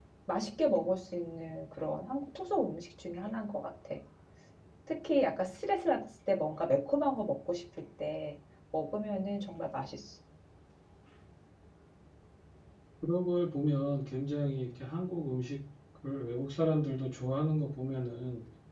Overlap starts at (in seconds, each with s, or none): none